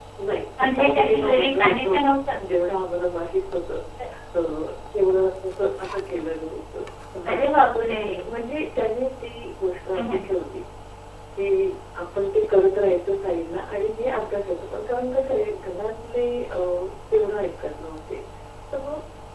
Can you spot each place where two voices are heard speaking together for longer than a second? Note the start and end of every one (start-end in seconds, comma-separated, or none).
0.6-2.0